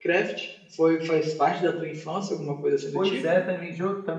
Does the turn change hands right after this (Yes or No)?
Yes